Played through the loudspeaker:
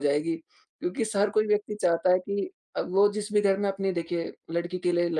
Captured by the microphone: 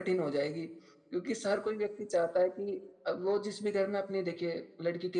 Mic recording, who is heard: echo only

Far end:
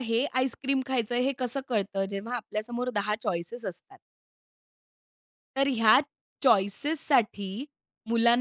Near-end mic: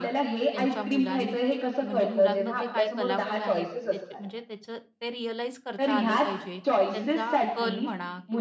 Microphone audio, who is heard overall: both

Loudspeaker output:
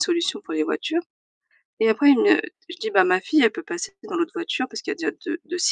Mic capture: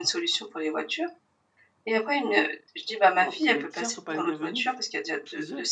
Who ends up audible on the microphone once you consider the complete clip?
both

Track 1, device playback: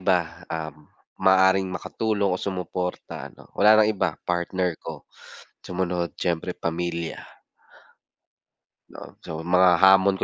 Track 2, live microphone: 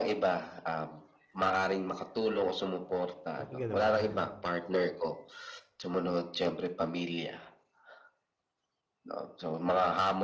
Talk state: both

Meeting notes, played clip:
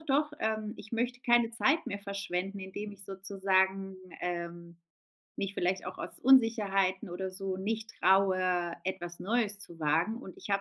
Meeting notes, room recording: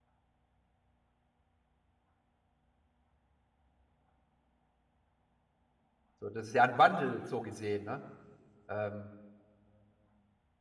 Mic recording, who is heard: user only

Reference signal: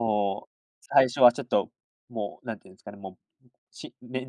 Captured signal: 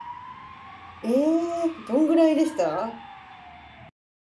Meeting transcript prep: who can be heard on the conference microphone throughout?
user only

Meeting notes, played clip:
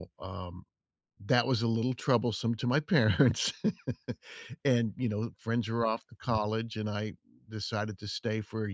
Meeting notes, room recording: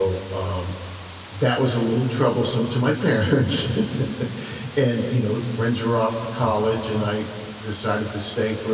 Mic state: echo only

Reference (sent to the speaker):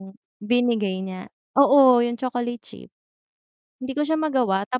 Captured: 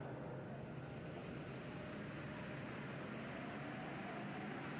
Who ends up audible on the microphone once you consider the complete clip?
neither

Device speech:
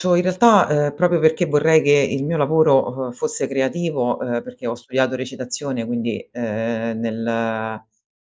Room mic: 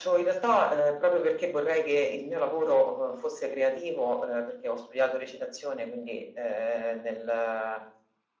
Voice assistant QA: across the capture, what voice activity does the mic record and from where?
echo only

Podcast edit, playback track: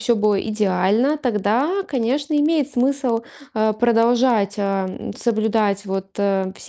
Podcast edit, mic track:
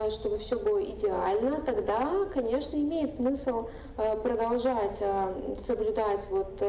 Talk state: echo only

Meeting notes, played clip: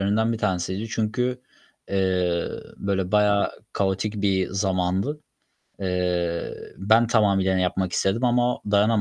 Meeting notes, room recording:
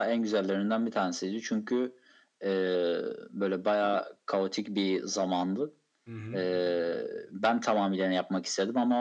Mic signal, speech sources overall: both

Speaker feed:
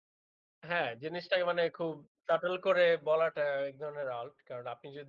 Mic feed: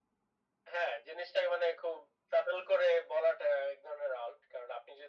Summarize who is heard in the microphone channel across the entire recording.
echo only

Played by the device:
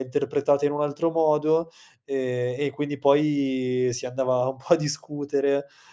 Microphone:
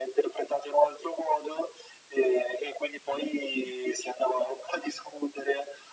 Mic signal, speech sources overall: echo only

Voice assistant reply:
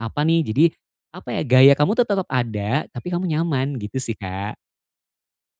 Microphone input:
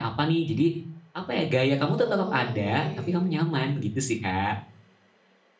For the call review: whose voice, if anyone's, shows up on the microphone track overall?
both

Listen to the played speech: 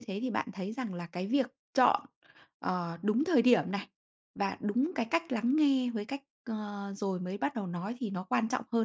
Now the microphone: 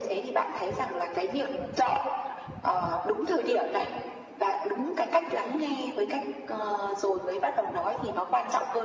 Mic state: echo only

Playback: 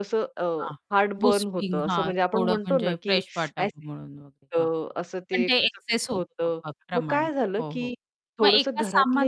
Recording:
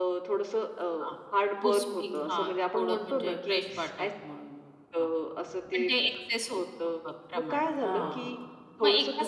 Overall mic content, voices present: both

